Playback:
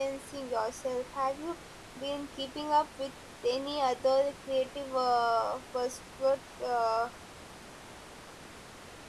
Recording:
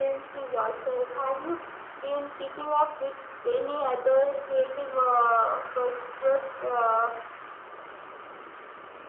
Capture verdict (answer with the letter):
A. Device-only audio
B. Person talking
A